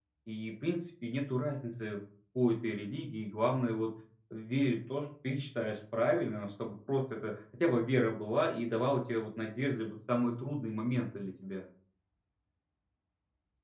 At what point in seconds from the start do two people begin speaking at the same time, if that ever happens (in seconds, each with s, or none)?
none